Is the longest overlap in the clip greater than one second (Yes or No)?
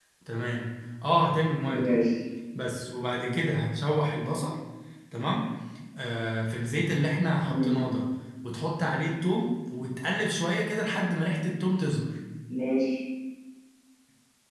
No